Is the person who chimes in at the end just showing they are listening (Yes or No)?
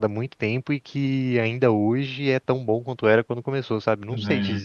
No